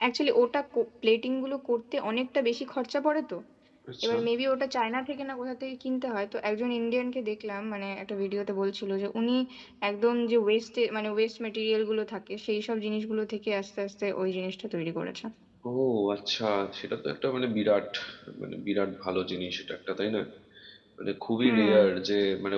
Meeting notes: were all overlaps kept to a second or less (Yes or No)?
Yes